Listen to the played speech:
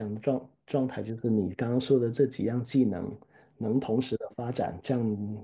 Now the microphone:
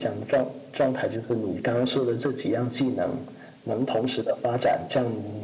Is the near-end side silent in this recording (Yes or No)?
Yes